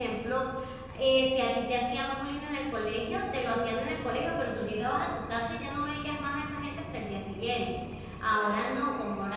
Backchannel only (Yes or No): Yes